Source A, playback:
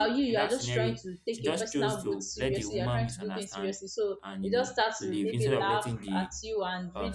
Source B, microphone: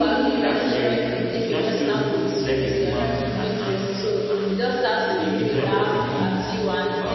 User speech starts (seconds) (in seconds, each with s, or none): none